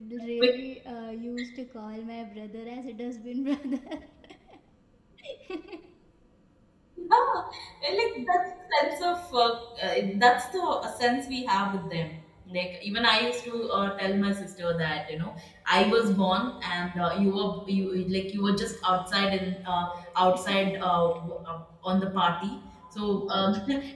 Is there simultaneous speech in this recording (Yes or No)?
No